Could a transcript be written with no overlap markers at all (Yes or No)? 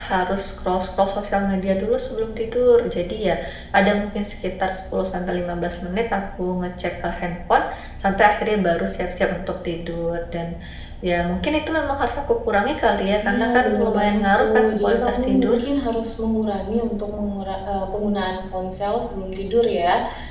No